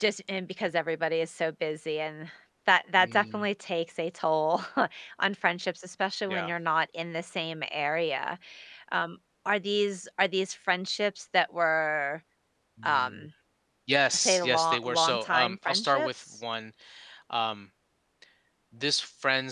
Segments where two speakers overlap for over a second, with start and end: 14.2-16.4

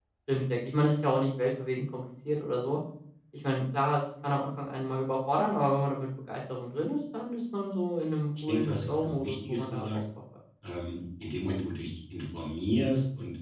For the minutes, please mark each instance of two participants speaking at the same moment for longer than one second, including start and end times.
8.4-9.8

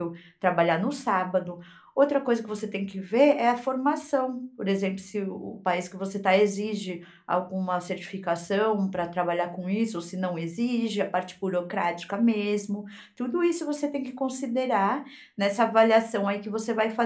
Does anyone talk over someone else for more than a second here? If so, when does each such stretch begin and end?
none

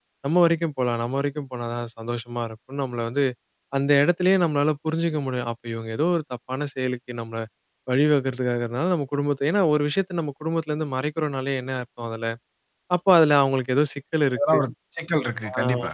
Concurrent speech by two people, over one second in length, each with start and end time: none

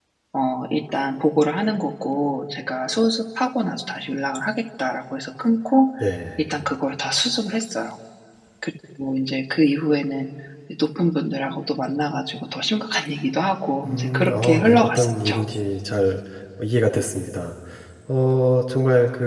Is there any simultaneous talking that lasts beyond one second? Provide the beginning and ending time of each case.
13.8-15.4

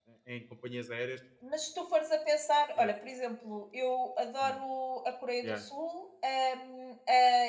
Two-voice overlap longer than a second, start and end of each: none

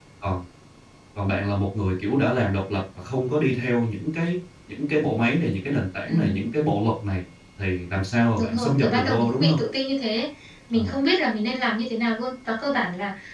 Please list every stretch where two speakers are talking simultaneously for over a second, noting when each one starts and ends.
8.4-9.6

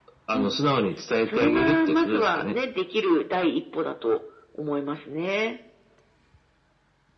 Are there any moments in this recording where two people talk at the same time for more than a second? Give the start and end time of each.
1.3-2.5

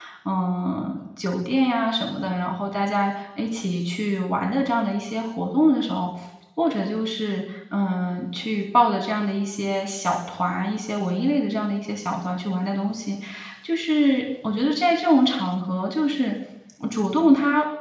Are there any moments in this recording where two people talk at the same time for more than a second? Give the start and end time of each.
none

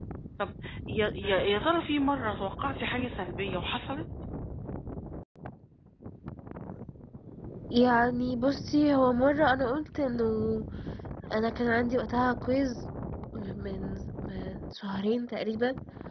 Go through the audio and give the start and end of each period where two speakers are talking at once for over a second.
none

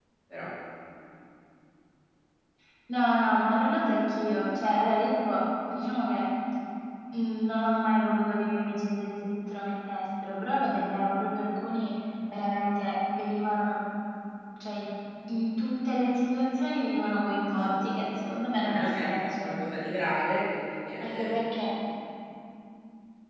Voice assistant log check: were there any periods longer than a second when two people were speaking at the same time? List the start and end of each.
17.6-19.5

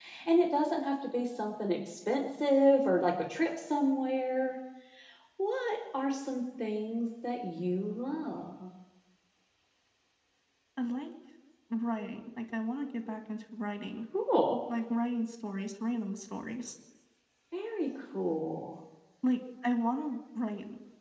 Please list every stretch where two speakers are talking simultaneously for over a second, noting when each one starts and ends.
none

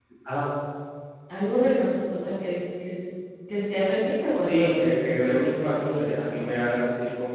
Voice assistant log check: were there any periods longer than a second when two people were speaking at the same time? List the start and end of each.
4.5-6.5

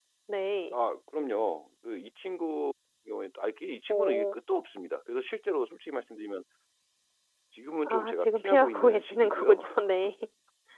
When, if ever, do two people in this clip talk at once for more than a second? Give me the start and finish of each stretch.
7.8-9.6

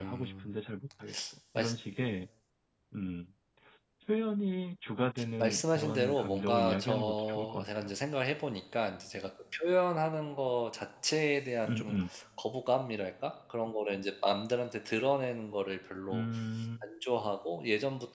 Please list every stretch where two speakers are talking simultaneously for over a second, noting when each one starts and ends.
5.4-7.9

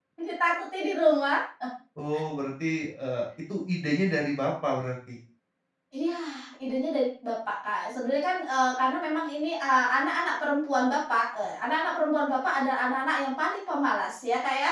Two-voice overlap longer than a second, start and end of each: none

